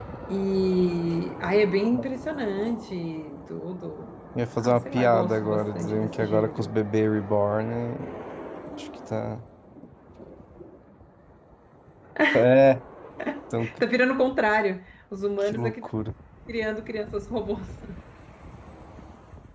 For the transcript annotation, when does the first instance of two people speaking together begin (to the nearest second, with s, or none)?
5 s